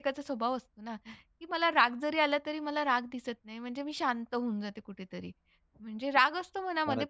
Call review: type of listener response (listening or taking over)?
listening